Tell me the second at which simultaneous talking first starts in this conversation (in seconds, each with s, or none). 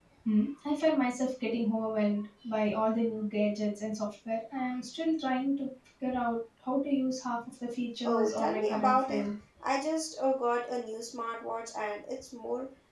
8.0 s